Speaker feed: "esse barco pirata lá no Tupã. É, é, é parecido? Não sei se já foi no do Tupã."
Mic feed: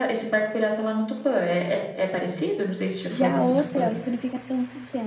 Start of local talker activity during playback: 3.1 s

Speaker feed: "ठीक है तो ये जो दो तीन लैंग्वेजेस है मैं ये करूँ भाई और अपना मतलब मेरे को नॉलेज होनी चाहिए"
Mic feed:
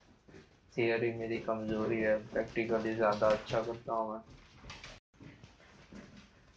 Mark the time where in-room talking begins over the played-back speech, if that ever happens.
0.8 s

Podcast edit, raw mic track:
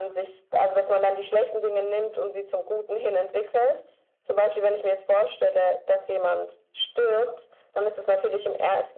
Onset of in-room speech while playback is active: none

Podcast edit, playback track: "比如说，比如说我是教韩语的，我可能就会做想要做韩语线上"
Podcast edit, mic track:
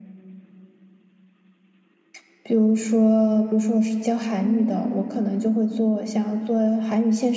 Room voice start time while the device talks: 4.3 s

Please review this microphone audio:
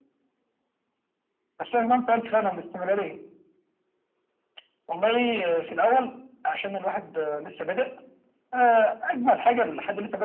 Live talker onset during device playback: none

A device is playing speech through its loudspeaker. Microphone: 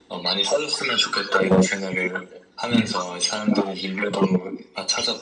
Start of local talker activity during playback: none

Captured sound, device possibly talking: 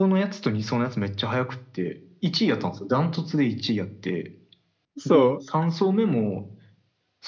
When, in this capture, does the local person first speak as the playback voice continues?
5.0 s

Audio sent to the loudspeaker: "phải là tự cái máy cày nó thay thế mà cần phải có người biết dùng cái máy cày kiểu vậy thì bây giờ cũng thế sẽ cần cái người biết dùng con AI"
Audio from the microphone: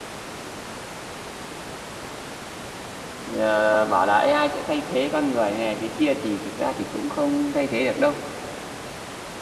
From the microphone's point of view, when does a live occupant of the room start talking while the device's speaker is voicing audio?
3.2 s

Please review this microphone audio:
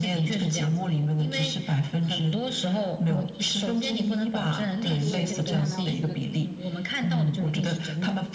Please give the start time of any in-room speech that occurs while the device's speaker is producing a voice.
5.0 s

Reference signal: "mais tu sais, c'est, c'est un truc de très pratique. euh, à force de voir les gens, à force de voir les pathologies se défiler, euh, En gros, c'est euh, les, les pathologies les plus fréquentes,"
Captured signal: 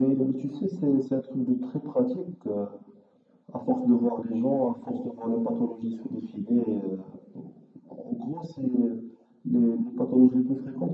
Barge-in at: none

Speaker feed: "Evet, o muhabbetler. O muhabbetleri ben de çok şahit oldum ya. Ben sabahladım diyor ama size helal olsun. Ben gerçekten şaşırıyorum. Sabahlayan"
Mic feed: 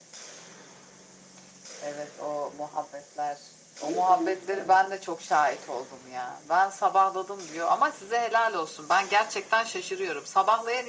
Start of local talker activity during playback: 3.7 s

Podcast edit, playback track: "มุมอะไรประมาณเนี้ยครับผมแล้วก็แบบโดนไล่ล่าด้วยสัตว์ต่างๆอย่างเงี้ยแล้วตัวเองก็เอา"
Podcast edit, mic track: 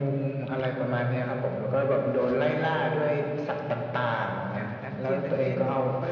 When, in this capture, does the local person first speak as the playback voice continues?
4.5 s

